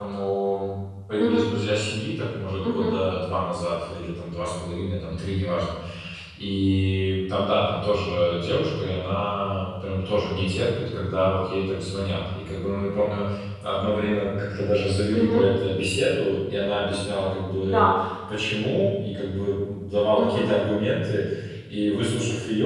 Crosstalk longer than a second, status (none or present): none